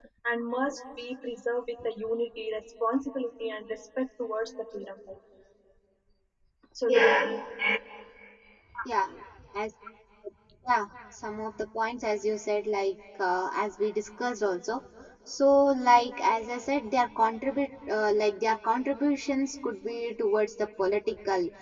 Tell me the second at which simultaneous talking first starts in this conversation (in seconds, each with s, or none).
none